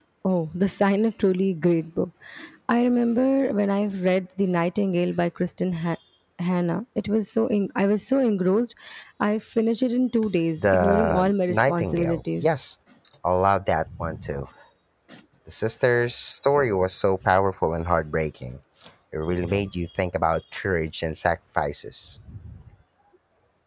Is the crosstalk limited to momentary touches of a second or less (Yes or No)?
No